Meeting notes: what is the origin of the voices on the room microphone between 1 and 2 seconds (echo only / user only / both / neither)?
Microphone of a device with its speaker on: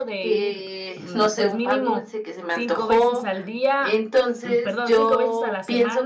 both